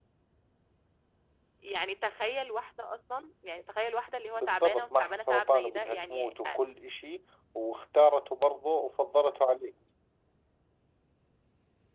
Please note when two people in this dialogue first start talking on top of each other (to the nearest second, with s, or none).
4 s